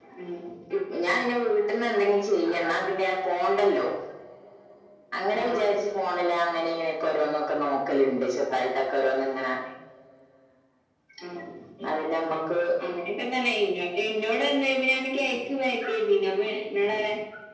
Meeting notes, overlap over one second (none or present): none